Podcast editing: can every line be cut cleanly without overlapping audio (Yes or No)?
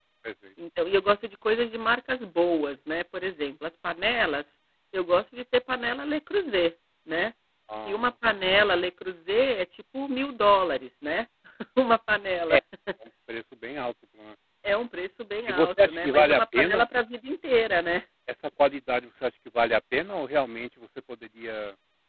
No